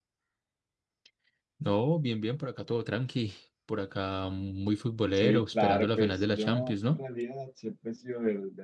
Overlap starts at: 5.2 s

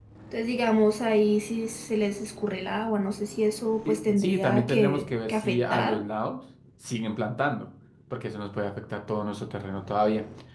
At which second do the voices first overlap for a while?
3.8 s

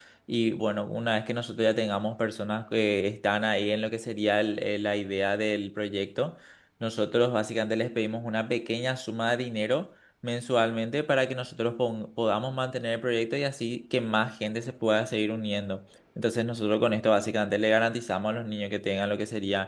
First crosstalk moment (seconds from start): none

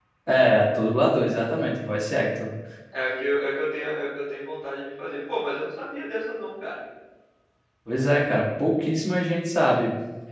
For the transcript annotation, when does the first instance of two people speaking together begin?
none

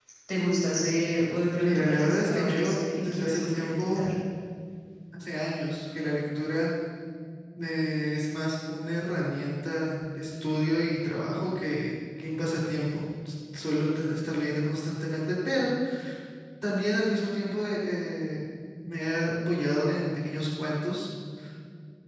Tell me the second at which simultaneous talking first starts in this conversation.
1.6 s

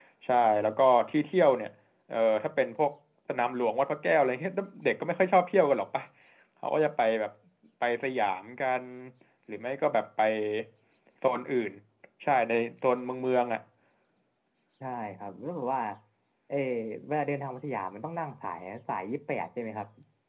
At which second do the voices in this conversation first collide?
none

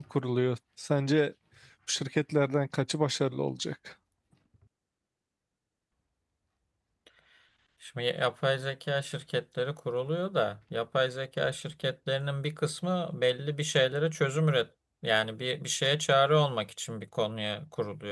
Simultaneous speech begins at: none

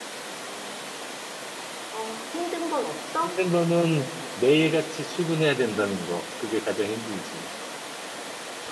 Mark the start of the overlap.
none

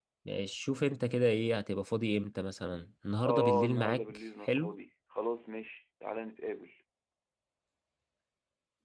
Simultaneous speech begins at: 3.2 s

